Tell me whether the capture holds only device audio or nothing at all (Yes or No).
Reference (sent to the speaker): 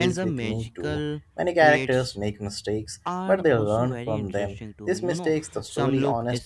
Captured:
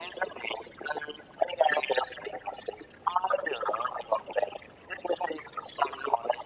Yes